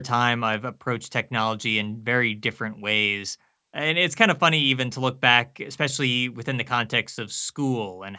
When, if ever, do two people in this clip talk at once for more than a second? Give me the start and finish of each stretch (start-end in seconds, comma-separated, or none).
none